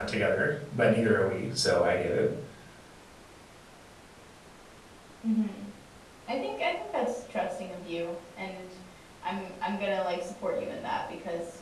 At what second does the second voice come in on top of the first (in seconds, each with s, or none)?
none